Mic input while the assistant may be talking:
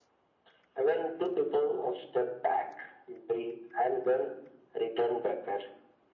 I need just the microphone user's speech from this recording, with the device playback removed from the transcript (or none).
none